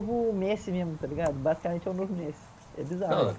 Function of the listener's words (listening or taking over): taking over